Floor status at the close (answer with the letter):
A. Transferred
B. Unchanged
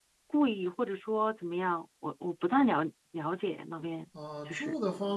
A